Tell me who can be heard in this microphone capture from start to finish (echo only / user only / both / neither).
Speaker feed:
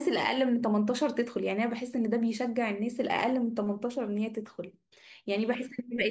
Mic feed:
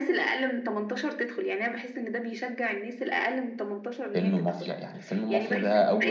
both